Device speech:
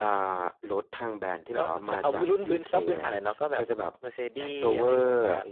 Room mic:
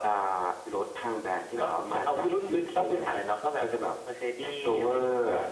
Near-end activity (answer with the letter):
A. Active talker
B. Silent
B